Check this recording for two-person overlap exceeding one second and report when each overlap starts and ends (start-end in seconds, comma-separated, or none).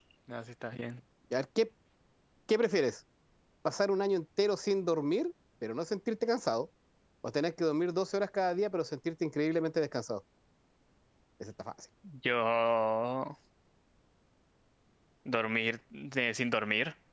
none